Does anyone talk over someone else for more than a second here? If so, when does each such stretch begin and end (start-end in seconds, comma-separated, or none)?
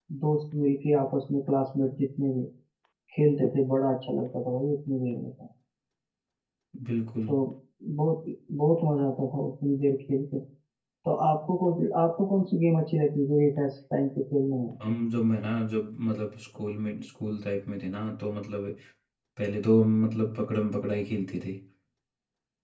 none